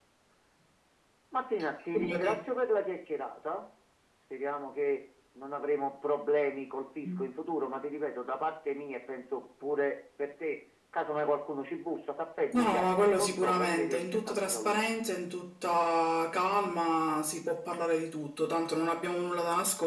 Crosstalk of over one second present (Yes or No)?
Yes